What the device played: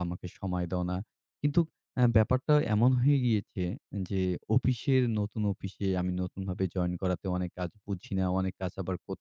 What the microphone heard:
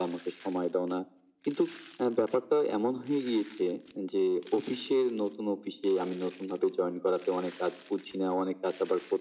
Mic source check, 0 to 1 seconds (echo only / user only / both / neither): echo only